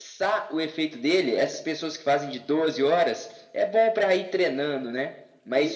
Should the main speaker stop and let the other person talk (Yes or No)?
No